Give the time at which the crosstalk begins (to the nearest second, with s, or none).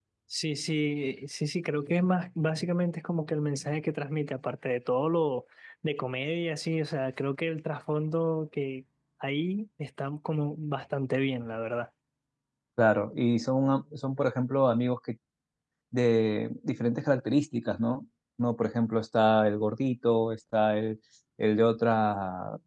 none